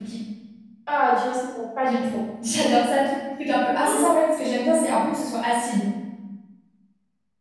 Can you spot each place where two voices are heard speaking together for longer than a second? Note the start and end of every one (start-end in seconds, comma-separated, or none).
none